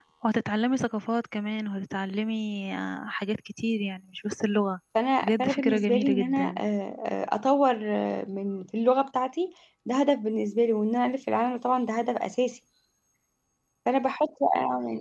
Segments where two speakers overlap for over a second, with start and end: 5.2-6.6

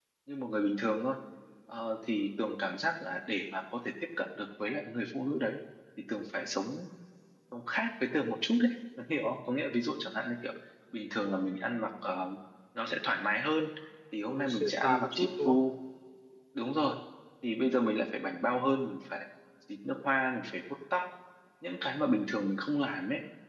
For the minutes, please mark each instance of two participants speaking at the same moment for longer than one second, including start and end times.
14.3-15.6

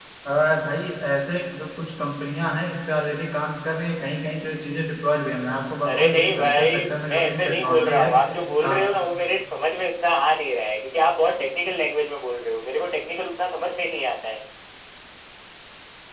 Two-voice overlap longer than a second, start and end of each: 5.9-8.1

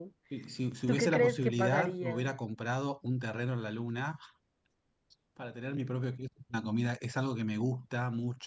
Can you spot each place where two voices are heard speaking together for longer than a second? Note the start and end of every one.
0.9-2.3

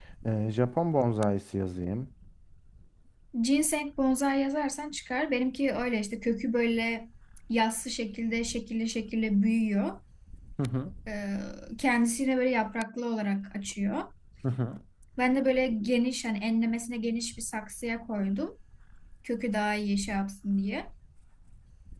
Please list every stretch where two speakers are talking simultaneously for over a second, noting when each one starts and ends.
none

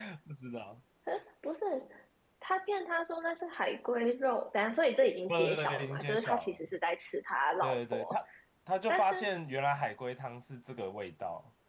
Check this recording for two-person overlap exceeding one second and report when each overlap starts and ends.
5.3-6.7

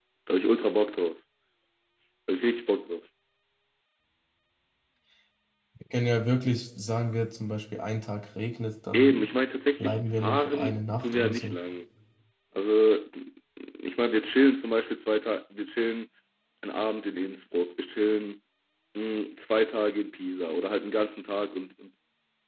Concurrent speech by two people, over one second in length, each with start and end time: 9.8-11.6

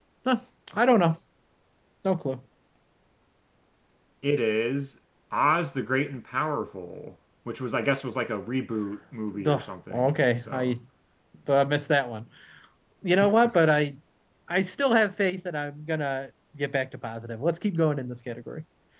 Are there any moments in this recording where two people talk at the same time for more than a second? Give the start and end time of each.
9.3-10.8

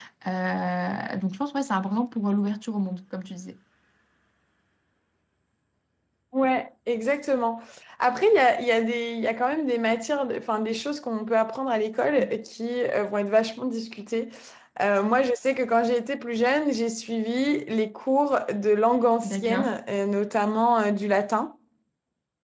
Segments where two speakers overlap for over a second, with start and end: none

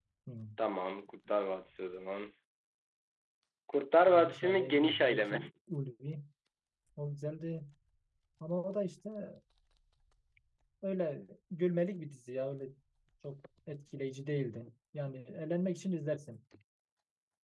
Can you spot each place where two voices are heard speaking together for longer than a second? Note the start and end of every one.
4.1-5.4

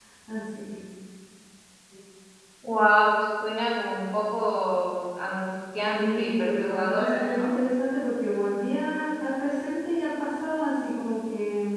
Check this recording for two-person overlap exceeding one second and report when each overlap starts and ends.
5.8-7.6

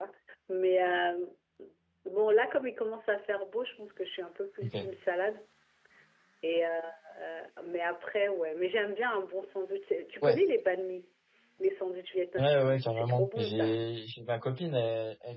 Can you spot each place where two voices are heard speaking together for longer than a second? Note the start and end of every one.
12.4-13.8

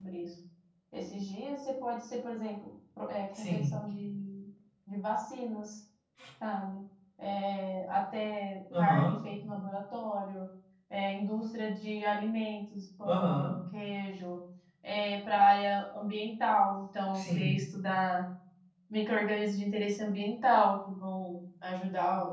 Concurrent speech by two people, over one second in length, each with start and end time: none

